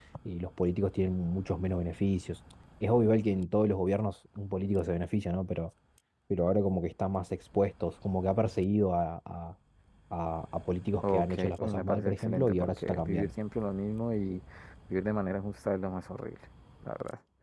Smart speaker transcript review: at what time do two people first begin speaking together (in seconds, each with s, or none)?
11.0 s